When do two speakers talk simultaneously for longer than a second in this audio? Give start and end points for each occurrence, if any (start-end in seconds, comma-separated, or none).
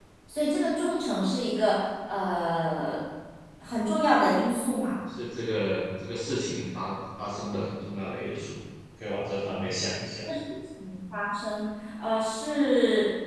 none